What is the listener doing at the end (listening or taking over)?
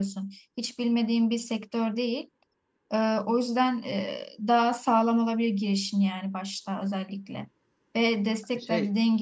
listening